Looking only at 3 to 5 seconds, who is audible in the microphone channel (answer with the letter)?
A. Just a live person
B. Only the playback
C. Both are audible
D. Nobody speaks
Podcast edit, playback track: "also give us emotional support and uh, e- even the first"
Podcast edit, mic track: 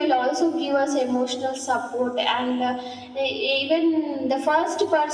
B